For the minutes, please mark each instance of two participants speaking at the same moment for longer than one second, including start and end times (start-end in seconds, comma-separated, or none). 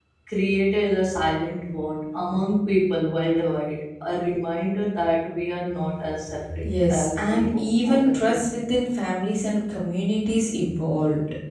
6.6-8.4